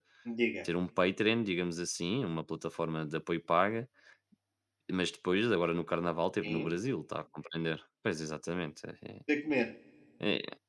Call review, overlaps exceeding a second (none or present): none